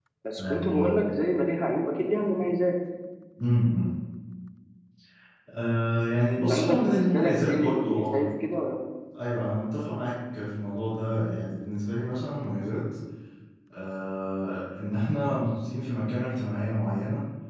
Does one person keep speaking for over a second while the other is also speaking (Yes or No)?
Yes